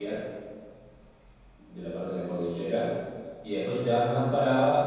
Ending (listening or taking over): listening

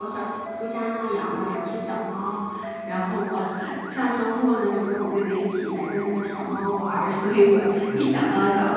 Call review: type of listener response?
listening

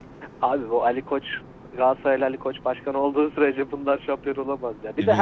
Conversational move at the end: listening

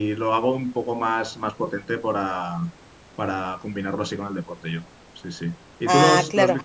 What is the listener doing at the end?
listening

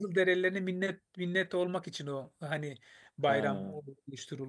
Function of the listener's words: listening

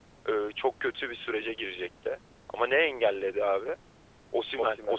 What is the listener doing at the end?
listening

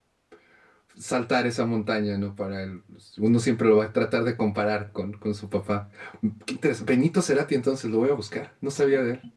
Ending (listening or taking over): taking over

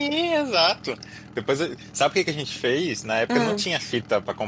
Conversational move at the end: listening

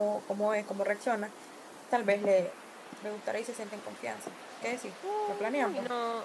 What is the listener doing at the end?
taking over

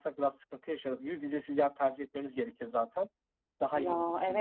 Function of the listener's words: taking over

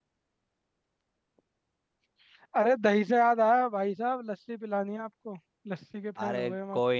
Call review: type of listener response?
taking over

